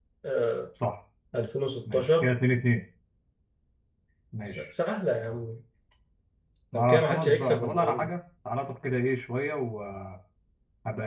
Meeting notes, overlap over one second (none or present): present